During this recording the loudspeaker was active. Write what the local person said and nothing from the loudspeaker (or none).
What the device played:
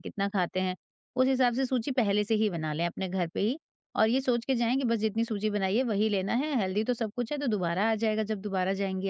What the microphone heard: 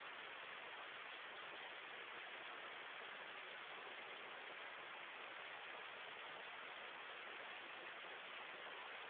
none